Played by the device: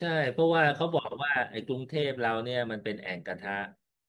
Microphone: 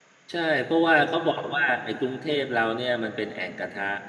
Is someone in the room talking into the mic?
No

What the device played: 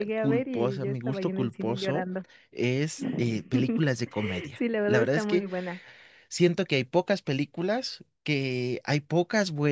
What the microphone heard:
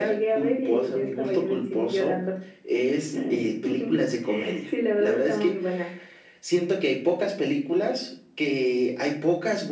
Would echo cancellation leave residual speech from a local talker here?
No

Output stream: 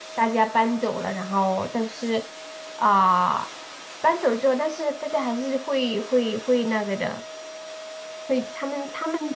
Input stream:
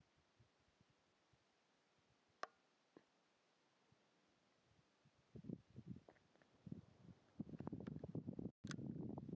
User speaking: No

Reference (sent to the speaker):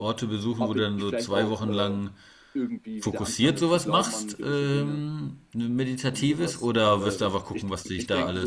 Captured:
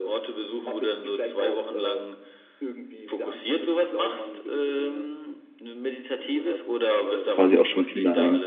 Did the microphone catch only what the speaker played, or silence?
No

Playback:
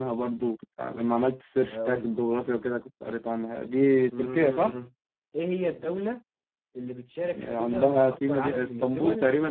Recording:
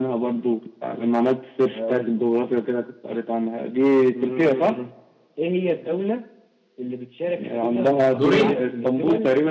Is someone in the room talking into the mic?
Yes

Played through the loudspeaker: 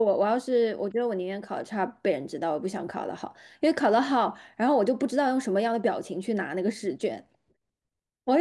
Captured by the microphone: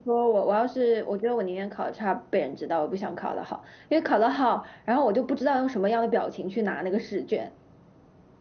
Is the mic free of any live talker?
Yes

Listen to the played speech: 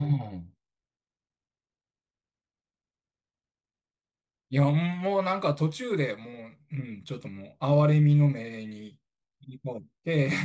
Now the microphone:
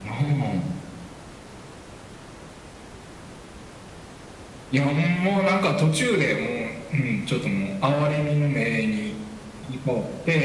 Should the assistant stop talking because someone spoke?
No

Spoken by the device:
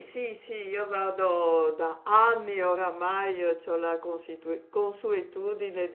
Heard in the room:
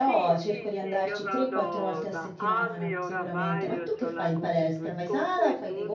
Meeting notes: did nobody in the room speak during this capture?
No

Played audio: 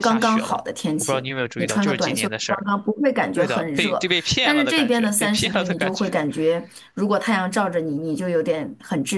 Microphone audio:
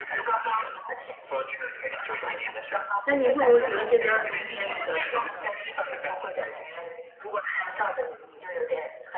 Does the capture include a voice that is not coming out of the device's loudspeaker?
Yes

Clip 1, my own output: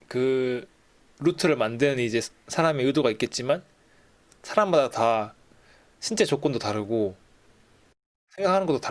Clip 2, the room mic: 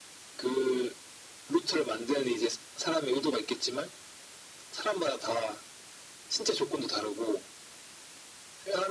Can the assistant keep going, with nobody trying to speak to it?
Yes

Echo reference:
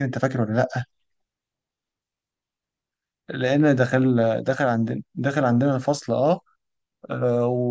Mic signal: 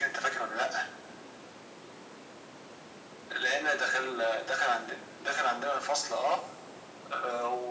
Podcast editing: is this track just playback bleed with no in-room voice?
Yes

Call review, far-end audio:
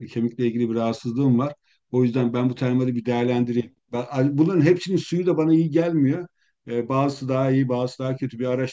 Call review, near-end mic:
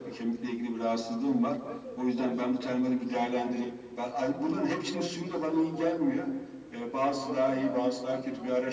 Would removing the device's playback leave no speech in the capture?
No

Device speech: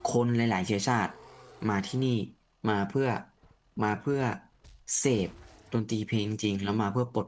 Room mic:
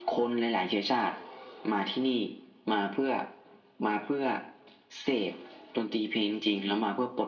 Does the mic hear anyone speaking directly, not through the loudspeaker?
No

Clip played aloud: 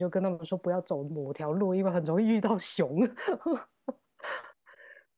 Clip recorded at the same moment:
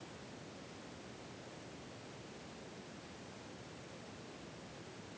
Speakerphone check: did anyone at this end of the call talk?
No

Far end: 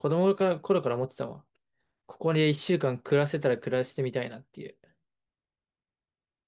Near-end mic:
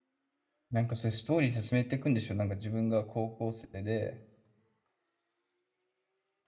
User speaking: Yes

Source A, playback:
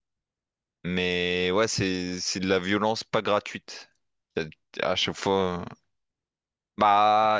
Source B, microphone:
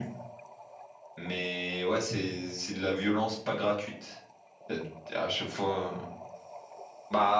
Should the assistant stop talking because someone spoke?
No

